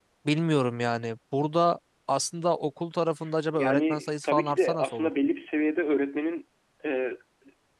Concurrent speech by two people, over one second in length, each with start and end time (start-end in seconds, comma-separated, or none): 3.5-5.1